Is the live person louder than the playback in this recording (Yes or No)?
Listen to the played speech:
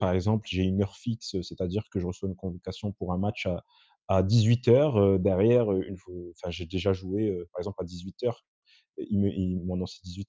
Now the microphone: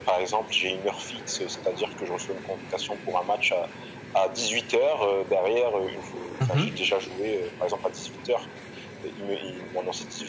Yes